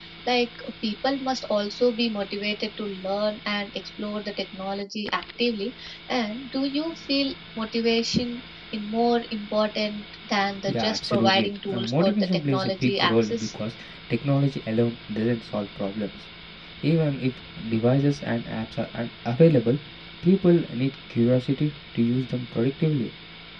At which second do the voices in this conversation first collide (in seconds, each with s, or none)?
10.7 s